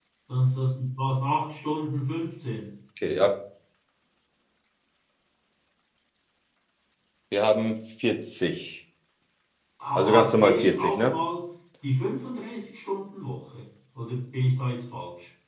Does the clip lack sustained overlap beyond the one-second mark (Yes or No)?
No